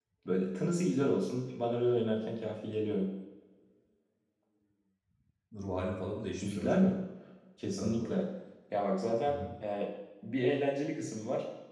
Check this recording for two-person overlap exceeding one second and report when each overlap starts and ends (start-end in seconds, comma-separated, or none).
none